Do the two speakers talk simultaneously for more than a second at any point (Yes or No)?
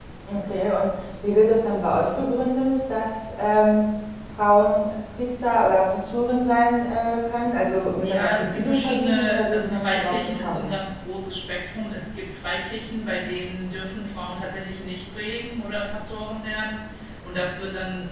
Yes